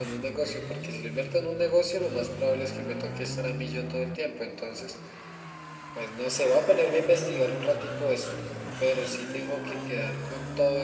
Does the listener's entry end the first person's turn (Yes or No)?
No